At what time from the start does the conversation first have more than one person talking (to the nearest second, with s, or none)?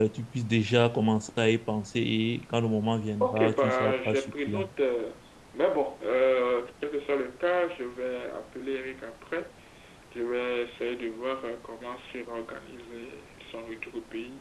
3 s